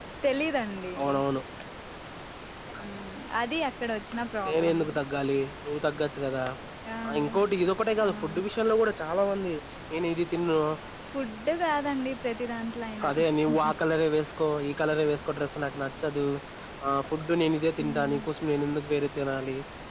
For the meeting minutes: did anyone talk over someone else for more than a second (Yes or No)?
No